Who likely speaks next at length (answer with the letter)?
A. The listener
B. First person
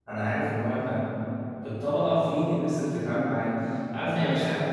B